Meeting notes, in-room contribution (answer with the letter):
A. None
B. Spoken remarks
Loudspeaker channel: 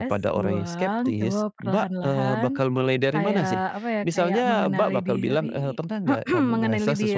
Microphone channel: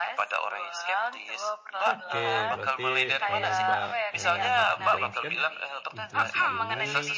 B